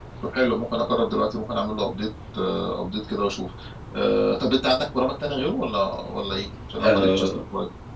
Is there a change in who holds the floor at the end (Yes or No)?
Yes